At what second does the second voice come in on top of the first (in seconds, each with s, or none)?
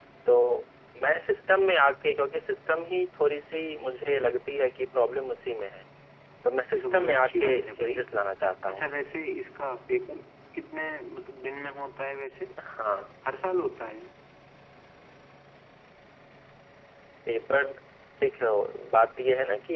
6.8 s